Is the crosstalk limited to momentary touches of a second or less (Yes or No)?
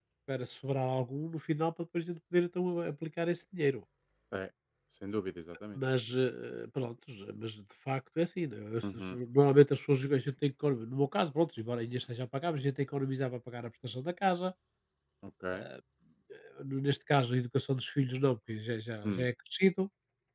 Yes